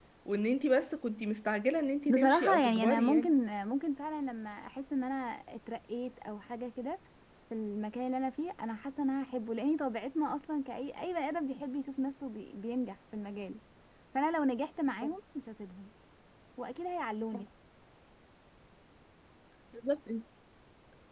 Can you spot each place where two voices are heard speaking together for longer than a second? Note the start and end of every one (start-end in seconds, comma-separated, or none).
2.1-3.3